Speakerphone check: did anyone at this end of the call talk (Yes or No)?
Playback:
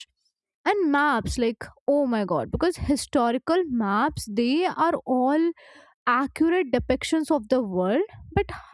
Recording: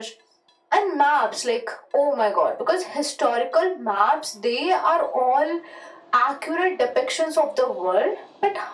No